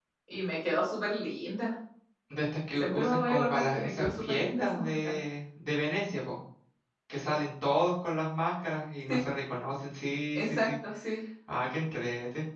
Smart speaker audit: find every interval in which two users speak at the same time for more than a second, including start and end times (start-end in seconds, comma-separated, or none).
2.8-5.2